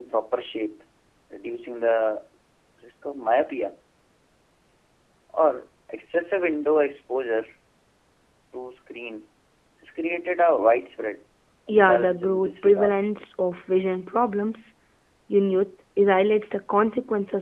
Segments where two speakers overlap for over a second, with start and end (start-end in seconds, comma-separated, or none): 11.7-12.9